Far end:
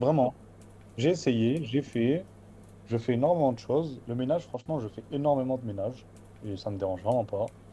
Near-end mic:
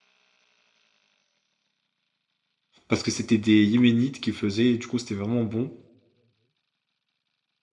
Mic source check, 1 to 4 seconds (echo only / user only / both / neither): user only